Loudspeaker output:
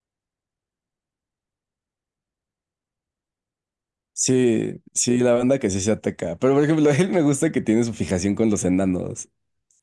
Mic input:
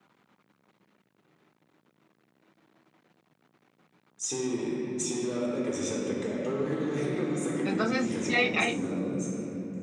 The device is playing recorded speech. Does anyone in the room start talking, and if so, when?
7.6 s

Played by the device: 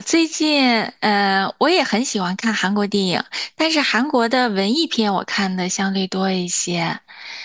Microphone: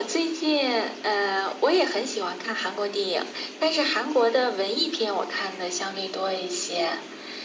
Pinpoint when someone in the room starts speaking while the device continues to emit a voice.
none

